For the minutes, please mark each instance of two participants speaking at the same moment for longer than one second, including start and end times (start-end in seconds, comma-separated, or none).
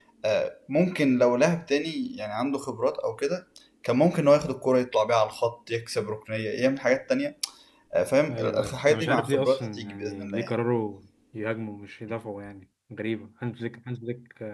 8.3-10.5